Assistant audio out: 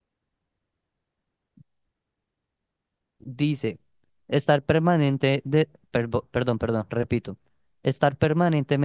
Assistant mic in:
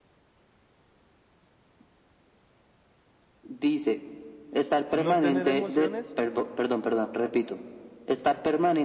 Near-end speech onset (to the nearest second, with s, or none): 5 s